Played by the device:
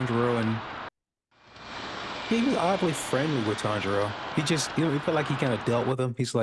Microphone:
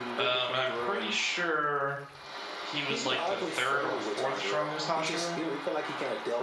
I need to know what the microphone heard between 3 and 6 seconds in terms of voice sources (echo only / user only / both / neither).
both